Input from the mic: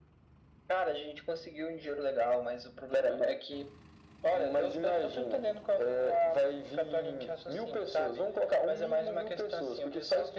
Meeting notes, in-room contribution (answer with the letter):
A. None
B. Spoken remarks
A